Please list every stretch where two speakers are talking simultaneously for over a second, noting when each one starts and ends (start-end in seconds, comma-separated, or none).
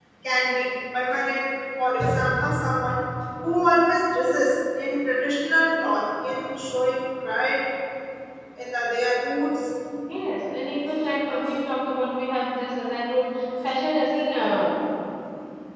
none